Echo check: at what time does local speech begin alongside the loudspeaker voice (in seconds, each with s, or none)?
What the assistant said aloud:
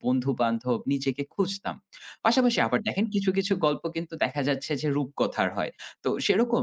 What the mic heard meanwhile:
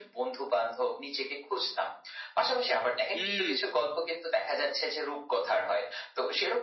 3.1 s